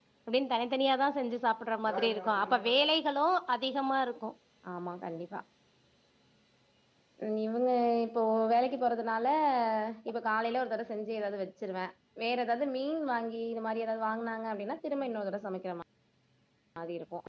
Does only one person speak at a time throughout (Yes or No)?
Yes